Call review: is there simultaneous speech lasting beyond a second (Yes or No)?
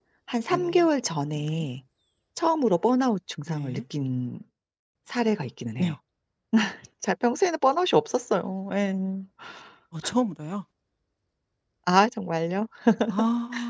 No